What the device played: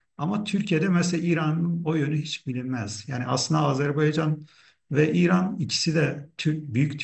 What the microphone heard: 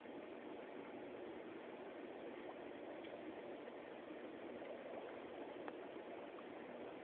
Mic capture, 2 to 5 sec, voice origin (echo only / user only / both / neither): neither